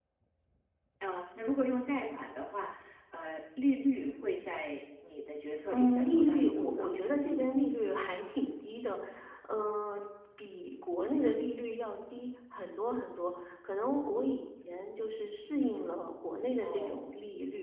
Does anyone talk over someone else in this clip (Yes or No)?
Yes